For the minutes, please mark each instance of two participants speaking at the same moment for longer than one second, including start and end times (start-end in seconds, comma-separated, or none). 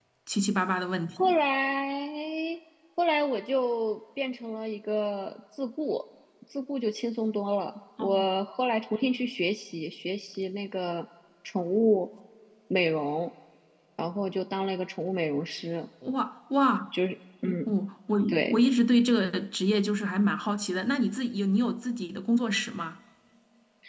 none